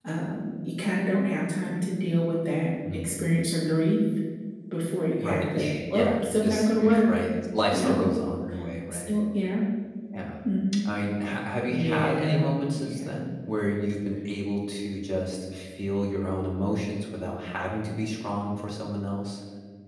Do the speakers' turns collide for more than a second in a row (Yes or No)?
Yes